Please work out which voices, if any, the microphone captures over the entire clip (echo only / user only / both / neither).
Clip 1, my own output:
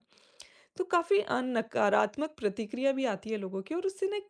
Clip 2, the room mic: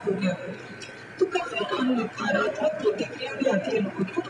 echo only